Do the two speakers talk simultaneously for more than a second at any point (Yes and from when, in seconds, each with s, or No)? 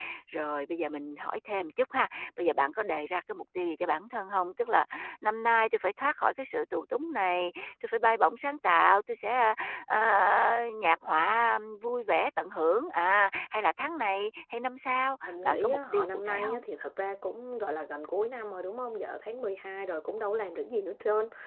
Yes, from 15.3 s